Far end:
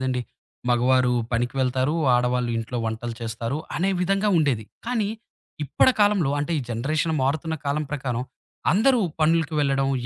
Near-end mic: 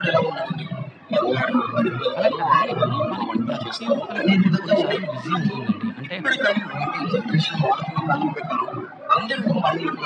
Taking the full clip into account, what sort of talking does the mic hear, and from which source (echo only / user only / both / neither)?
both